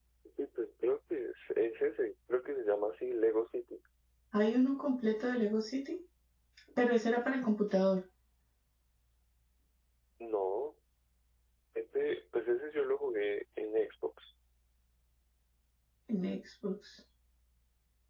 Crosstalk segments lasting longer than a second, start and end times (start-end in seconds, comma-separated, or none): none